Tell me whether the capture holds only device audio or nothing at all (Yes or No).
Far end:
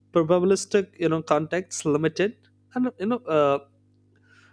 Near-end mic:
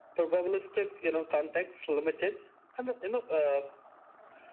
Yes